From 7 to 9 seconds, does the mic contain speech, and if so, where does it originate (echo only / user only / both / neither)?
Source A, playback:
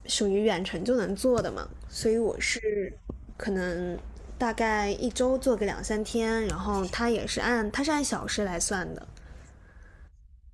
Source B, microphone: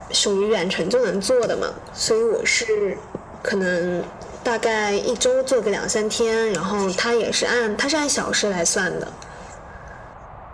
echo only